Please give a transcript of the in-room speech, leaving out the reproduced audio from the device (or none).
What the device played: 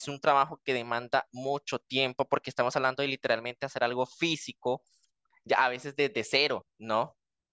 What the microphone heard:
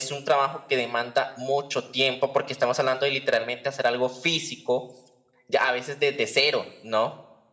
none